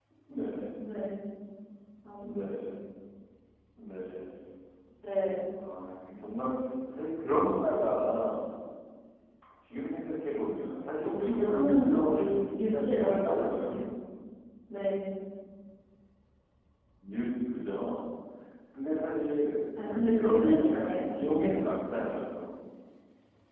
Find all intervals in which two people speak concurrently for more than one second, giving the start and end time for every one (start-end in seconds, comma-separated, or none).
11.0-13.8, 20.1-21.5